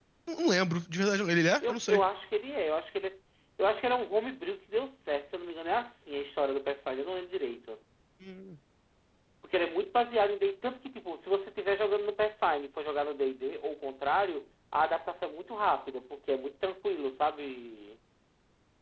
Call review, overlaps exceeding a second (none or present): none